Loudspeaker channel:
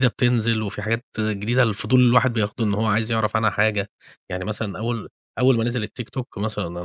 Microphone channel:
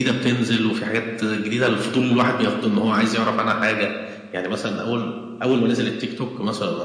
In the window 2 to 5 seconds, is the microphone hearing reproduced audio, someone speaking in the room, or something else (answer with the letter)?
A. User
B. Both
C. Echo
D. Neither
C